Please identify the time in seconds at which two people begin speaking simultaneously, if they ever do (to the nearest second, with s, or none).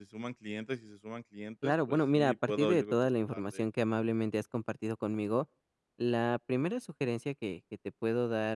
2 s